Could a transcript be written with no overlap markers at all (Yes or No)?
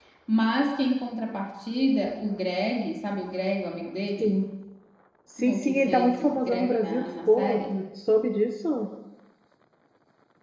No